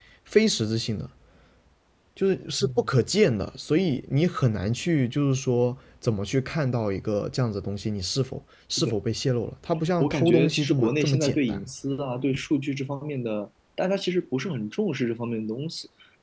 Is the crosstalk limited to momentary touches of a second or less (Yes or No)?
No